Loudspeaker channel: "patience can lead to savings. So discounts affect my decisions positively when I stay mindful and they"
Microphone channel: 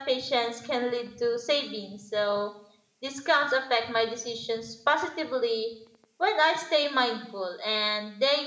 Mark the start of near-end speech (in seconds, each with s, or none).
none